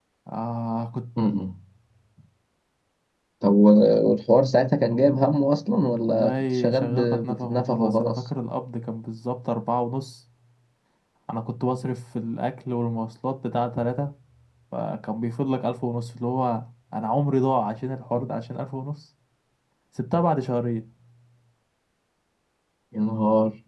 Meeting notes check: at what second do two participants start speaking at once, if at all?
6.1 s

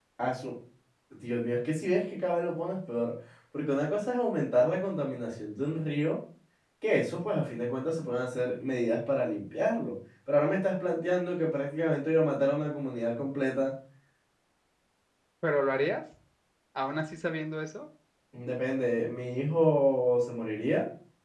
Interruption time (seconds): none

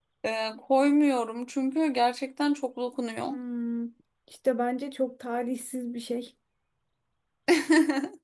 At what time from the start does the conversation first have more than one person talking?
none

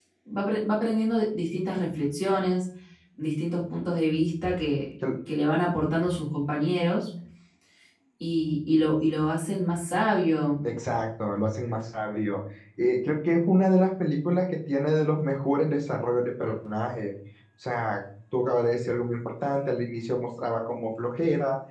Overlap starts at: none

